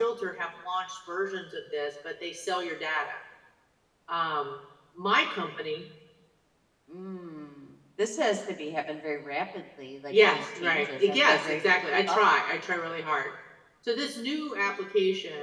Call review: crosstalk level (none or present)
present